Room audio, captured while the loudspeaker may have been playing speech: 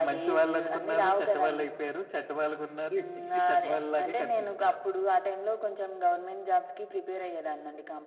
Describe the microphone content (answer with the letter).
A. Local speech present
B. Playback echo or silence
B